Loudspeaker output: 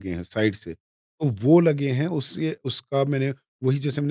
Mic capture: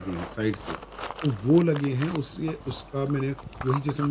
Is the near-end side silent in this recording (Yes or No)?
Yes